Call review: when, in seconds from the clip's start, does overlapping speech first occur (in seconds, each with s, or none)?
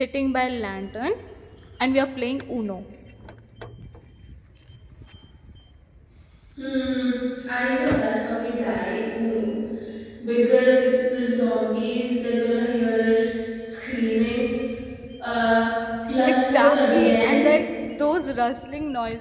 16.2 s